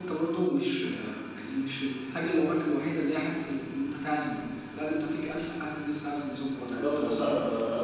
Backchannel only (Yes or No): No